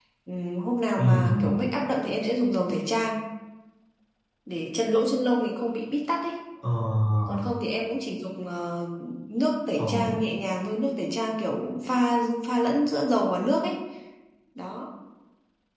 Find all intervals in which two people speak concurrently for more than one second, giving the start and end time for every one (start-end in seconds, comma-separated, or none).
none